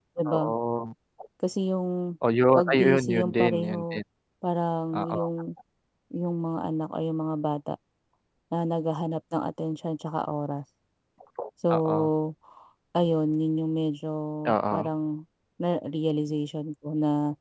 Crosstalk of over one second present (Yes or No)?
Yes